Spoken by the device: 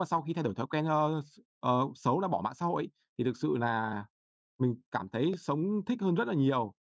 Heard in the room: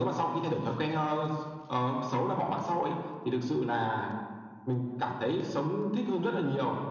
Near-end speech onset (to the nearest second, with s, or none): none